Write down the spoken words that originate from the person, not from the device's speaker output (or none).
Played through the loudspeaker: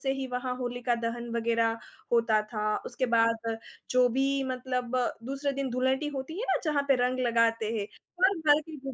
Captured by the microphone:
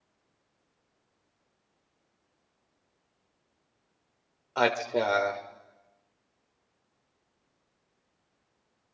अच्छा।